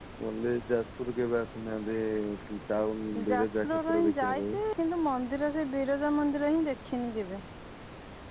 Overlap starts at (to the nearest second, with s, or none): 3 s